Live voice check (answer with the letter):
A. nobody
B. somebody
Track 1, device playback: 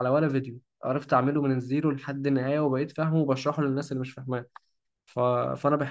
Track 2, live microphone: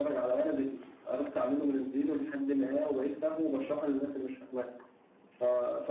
A